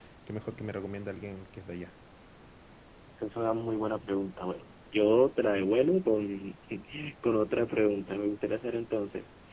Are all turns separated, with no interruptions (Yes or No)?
Yes